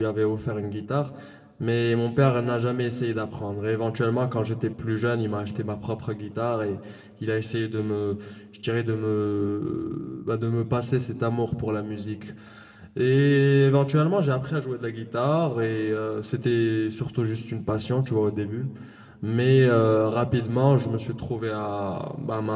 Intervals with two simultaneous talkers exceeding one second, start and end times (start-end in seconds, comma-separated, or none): none